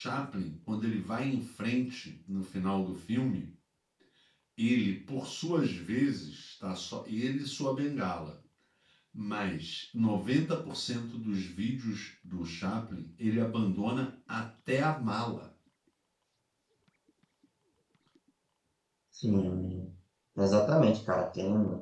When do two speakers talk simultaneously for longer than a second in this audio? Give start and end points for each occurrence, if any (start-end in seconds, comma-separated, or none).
none